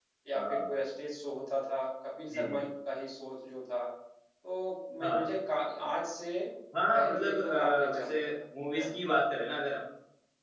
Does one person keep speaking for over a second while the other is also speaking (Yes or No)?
Yes